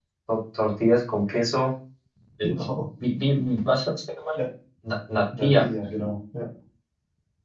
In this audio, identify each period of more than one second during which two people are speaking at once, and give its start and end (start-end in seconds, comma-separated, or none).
none